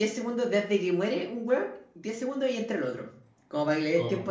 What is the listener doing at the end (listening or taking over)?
listening